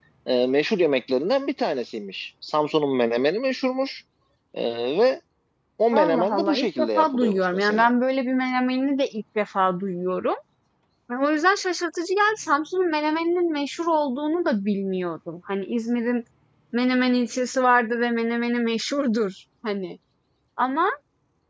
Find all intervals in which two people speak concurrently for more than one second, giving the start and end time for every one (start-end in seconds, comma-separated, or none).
6.0-7.9